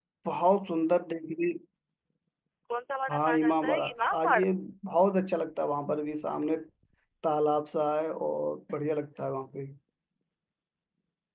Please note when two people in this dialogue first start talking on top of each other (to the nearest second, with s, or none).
3 s